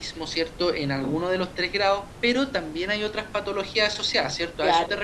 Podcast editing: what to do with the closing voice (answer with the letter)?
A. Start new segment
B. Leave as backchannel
A